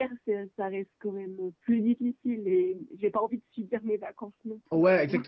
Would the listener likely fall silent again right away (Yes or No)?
No